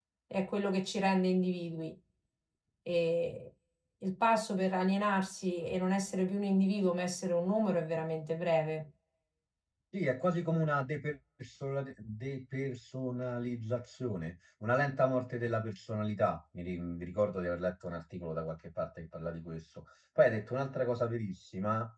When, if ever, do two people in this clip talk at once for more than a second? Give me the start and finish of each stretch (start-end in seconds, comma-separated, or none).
none